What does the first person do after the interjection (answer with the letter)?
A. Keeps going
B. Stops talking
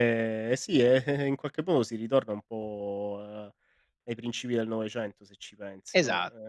A